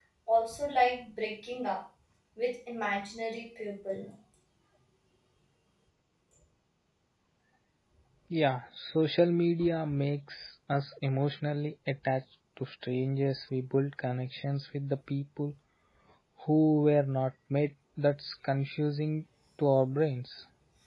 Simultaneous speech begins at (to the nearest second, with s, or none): none